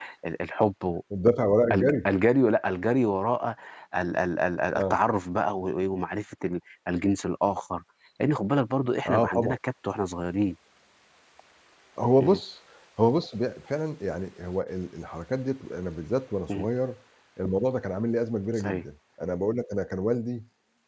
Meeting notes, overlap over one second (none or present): none